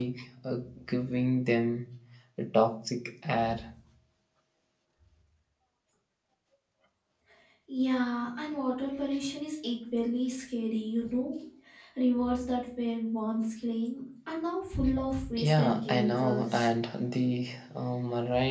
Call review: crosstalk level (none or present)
present